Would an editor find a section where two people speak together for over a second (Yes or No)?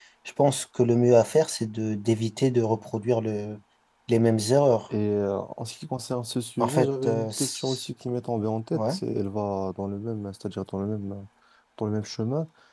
Yes